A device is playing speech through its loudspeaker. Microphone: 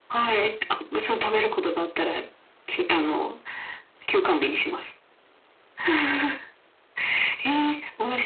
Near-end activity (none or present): none